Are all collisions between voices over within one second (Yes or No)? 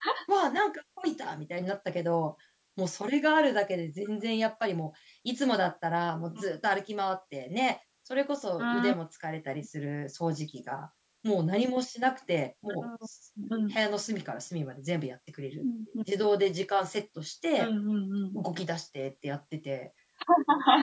Yes